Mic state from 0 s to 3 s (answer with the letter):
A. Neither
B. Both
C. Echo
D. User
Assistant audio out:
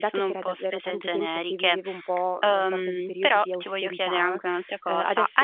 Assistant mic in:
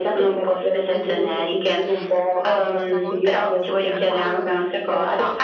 B